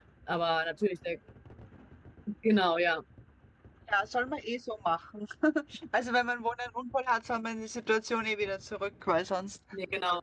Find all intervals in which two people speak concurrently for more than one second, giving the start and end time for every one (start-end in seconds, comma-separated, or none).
none